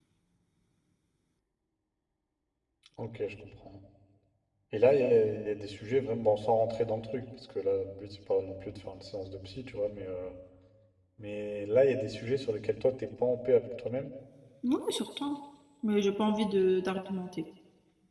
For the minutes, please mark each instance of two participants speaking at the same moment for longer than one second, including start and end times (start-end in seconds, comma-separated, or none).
none